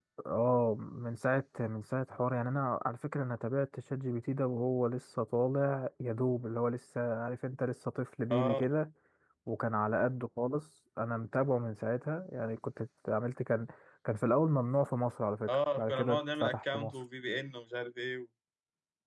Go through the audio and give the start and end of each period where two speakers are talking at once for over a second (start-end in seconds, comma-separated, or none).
15.5-16.9